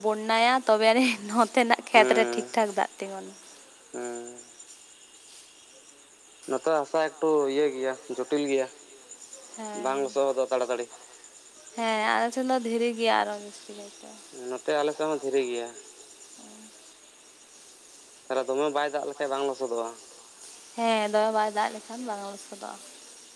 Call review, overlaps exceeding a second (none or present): none